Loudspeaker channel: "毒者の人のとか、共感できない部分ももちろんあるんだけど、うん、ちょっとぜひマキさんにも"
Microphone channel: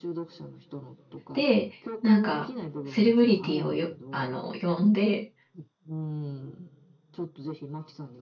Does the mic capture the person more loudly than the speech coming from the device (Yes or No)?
Yes